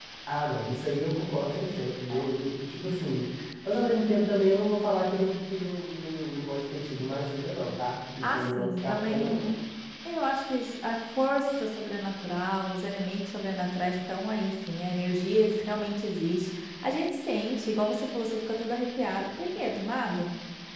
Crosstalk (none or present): present